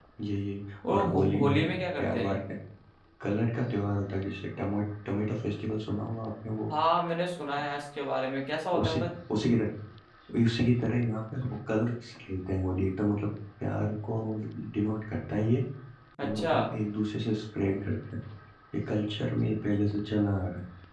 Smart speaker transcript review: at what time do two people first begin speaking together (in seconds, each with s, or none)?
0.9 s